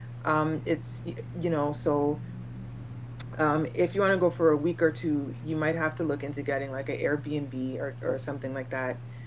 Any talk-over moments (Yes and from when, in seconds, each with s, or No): No